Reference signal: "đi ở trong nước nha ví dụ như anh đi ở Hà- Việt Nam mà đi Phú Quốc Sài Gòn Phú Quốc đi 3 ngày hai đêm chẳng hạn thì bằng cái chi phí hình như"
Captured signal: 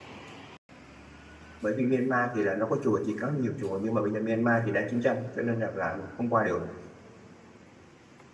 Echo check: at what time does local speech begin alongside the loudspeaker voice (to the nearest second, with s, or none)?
2 s